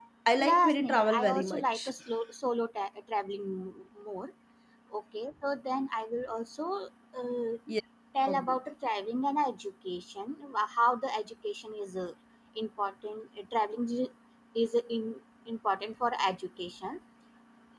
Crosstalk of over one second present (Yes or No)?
Yes